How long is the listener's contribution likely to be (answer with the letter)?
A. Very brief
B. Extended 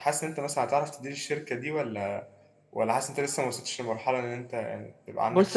B